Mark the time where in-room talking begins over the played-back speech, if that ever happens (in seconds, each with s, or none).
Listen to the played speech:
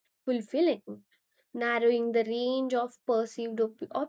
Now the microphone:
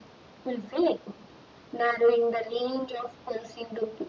none